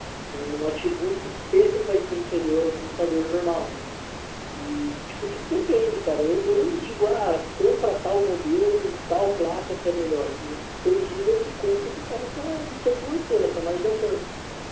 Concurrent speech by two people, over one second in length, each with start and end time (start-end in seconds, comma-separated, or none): none